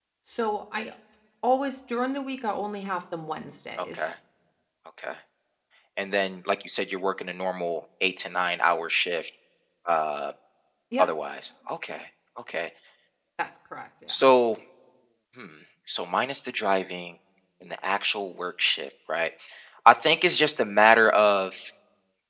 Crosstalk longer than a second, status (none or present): none